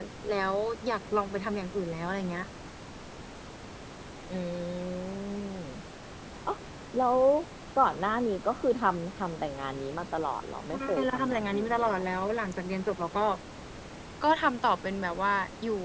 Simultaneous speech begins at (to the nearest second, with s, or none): 11 s